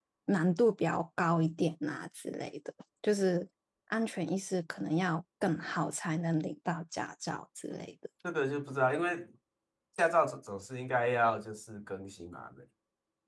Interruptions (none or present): none